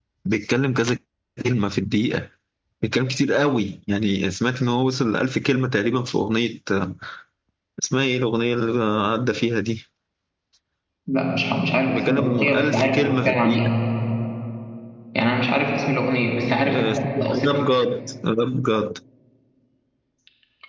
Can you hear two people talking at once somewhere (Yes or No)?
Yes